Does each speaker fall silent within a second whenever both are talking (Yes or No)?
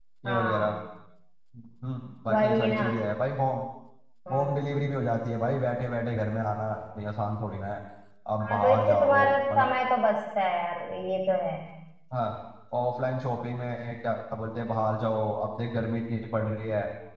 No